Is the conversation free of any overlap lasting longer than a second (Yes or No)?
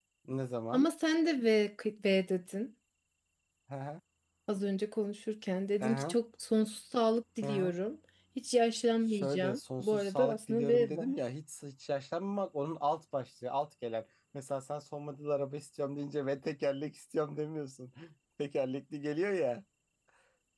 No